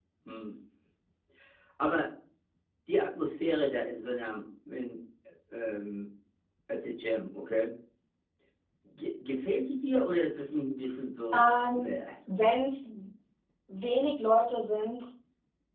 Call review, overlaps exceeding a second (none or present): none